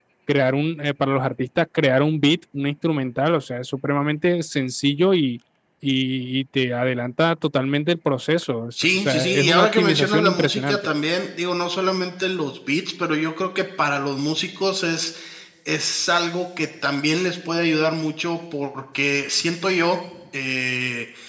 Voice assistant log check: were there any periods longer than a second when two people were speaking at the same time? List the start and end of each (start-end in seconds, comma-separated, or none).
8.8-10.9